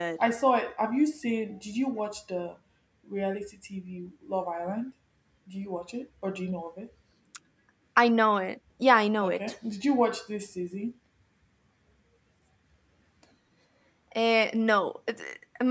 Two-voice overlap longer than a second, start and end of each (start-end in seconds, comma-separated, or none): none